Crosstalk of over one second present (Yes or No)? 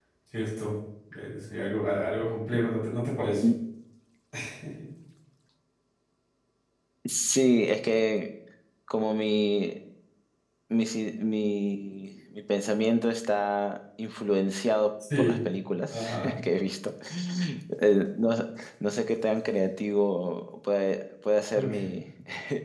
No